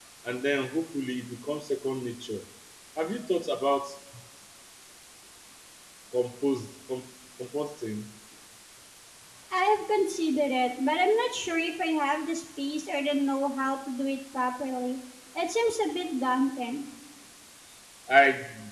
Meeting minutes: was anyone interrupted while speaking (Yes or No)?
No